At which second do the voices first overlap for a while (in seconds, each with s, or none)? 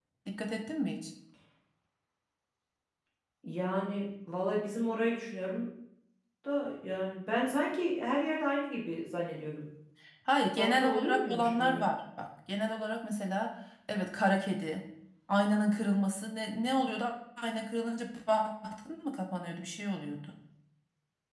10.6 s